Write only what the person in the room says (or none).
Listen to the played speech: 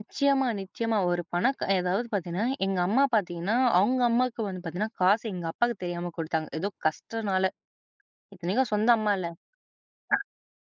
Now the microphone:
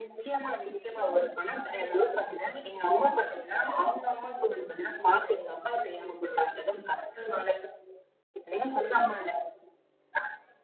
none